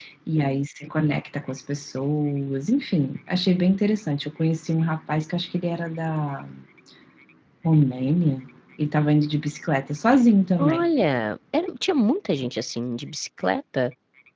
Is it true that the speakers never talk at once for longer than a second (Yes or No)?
Yes